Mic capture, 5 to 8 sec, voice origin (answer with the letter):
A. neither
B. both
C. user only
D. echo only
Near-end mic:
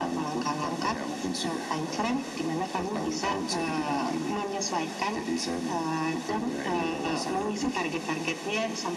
D